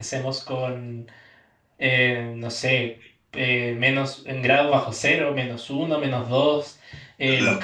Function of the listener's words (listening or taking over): listening